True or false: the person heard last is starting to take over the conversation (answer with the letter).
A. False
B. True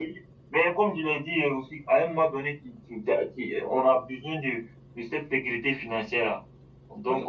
B